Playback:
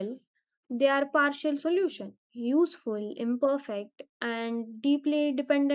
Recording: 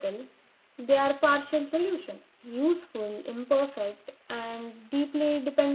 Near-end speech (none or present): none